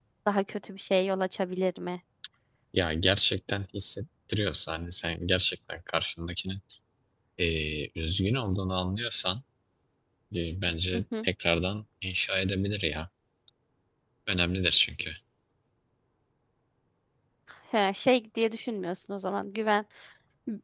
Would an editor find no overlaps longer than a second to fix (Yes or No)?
Yes